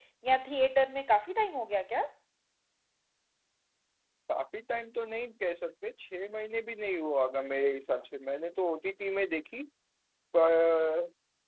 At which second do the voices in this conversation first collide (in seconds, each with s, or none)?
none